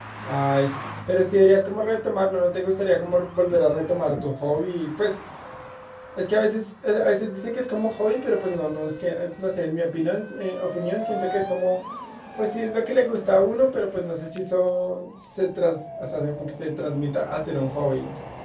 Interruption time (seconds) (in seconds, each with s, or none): none